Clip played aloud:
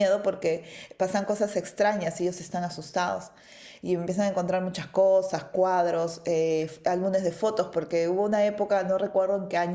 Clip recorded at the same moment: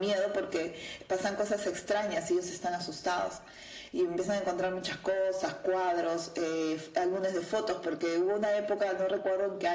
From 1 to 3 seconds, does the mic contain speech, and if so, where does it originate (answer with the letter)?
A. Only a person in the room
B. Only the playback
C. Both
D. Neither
B